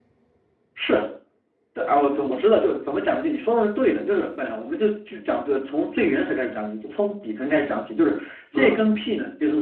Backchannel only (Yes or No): Yes